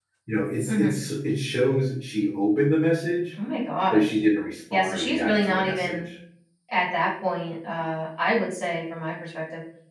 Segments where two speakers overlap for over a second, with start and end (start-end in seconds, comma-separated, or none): 4.7-6.1